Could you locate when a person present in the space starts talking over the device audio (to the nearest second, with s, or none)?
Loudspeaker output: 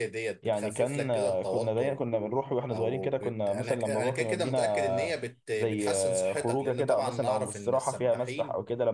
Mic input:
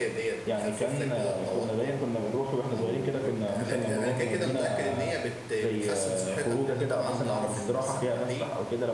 none